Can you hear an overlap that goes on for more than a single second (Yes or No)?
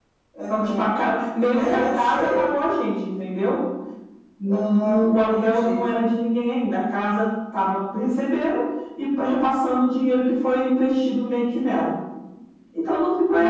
Yes